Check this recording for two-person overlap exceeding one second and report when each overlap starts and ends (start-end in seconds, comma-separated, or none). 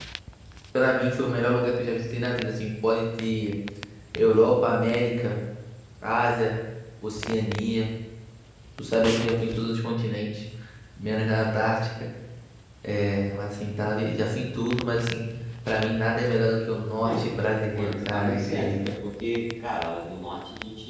17.7-18.9